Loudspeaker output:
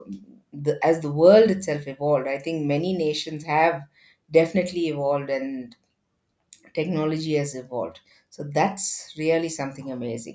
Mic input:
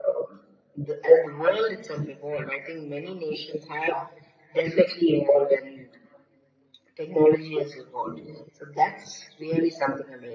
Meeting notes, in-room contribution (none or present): none